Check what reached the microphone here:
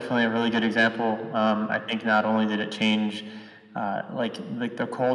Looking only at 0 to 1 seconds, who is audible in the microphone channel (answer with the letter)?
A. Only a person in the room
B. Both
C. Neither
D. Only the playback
D